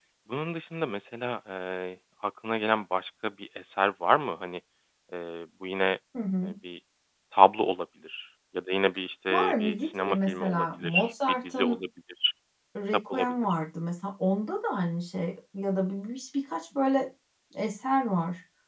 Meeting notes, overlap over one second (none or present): present